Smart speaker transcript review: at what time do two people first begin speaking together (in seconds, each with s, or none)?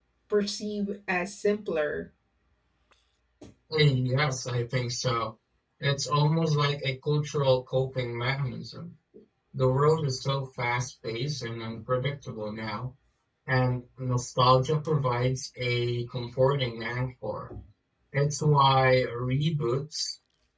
none